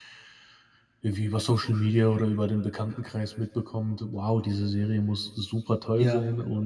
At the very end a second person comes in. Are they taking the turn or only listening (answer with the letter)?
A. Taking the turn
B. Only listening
B